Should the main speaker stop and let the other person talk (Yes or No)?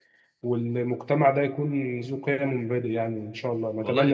Yes